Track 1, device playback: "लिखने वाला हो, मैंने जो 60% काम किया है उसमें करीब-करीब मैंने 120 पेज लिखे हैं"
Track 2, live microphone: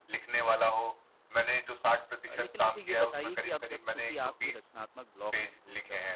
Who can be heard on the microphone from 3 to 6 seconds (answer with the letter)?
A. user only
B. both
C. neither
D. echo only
B